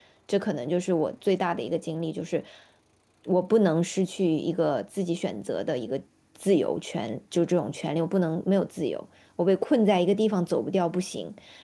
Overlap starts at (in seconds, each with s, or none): none